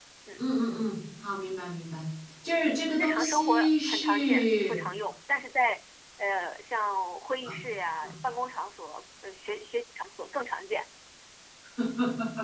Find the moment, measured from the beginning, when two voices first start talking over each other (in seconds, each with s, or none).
3.0 s